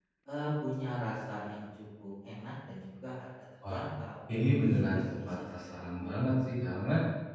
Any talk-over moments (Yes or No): Yes